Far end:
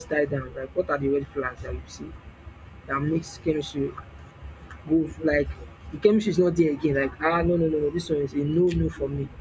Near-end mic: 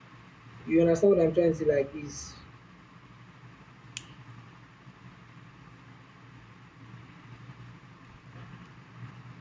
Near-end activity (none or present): present